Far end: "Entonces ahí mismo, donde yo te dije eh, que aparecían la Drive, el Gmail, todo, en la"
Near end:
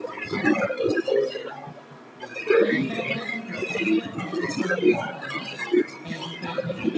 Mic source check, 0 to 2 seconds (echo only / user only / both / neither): echo only